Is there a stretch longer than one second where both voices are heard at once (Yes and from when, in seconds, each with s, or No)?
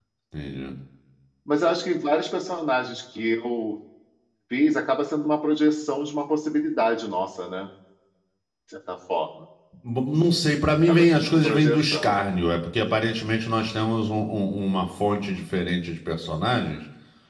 Yes, from 10.9 s